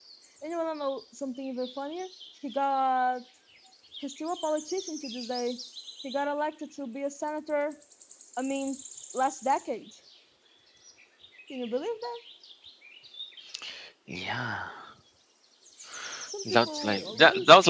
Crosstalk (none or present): present